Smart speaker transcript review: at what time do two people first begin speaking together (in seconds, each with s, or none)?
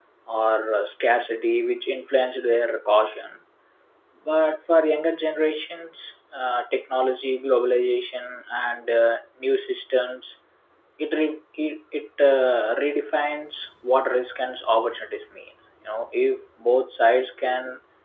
none